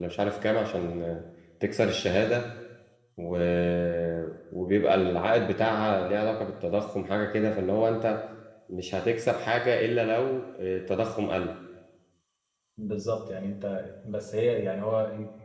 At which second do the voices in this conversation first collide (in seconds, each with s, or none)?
none